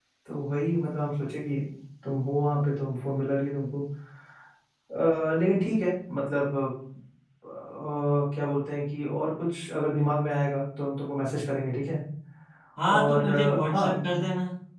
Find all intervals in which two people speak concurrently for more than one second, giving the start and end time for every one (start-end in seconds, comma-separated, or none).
13.0-14.2